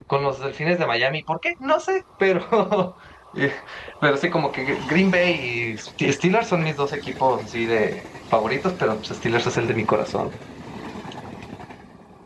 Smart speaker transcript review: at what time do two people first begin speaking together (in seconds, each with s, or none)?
none